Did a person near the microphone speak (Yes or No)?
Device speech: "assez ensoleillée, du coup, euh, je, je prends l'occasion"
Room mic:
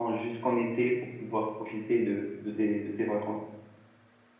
Yes